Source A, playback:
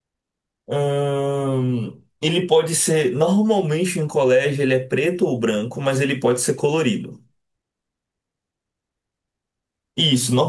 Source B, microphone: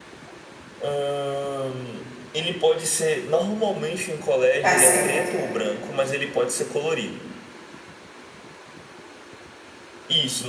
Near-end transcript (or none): Tá certo.